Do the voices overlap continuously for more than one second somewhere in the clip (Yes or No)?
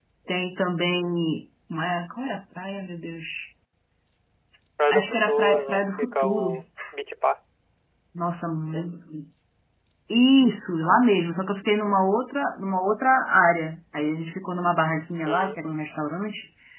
Yes